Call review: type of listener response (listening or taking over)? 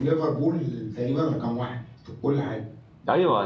taking over